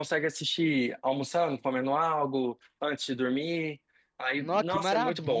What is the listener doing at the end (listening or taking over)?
taking over